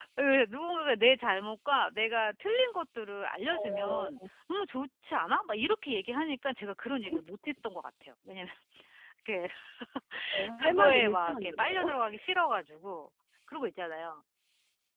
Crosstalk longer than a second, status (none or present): present